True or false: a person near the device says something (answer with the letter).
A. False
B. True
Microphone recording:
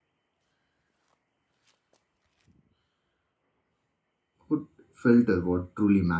B